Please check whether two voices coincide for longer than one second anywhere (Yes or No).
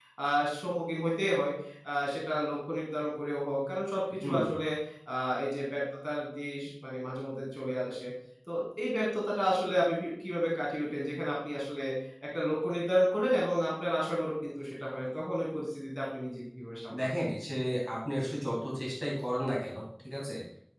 No